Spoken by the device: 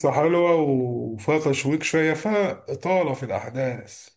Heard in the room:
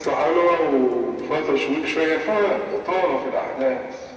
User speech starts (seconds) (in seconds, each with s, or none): none